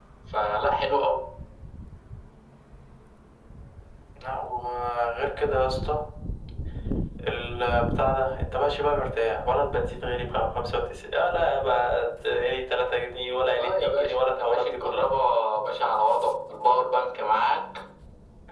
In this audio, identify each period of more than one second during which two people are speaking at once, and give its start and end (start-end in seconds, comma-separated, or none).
13.5-15.1